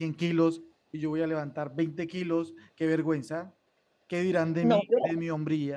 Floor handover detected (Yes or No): Yes